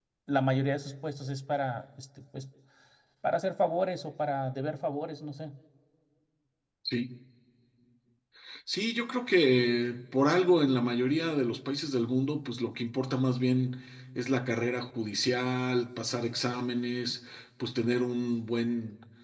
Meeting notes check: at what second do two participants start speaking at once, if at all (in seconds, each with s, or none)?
none